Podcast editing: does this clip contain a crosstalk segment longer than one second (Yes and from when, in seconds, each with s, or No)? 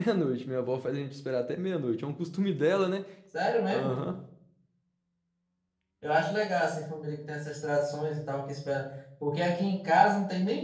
No